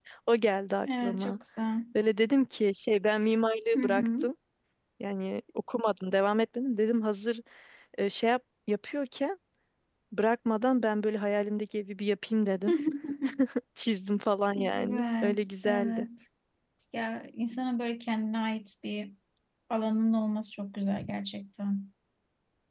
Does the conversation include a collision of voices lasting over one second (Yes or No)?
Yes